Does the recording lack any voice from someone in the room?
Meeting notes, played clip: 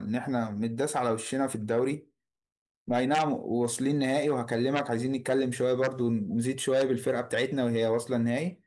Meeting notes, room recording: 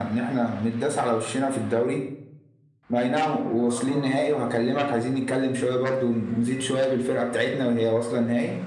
No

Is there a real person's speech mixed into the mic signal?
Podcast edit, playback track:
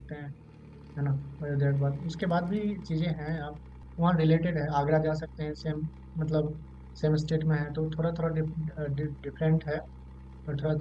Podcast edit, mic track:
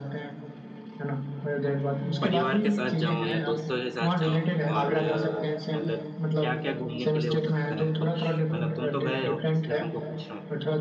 Yes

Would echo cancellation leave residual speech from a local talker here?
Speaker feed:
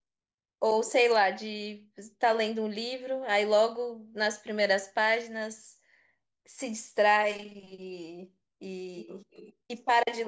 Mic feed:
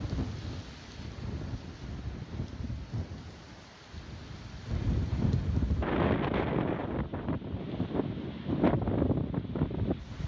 No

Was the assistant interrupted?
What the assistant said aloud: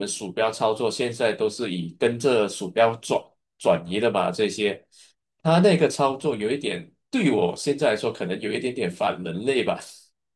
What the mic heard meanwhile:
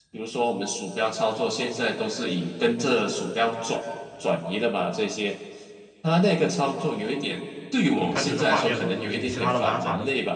Yes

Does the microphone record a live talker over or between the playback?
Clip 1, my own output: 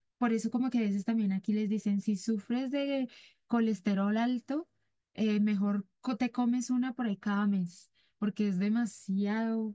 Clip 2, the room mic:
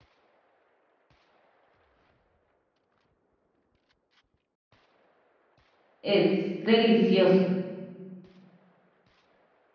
Yes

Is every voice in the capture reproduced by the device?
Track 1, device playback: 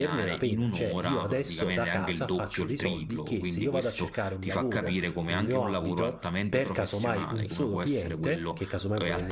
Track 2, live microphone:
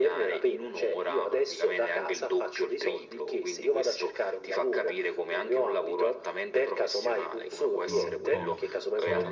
No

